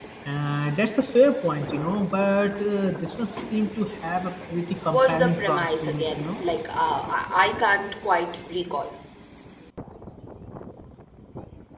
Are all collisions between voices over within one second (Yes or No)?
No